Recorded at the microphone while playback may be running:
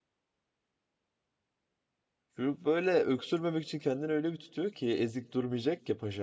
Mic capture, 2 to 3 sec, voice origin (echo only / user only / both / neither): user only